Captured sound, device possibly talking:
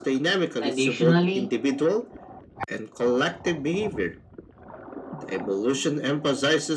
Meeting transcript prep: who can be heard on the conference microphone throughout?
both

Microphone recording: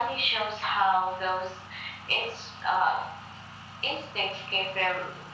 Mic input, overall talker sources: echo only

